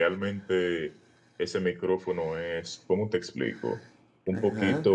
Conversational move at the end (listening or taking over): listening